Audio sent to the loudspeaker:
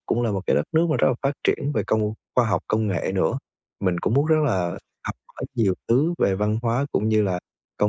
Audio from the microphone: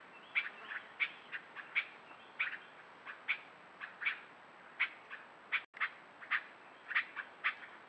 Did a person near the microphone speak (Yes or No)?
No